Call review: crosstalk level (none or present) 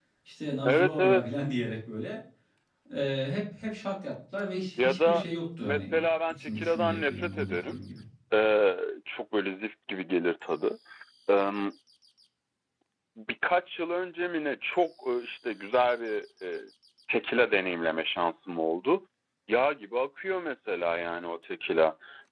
present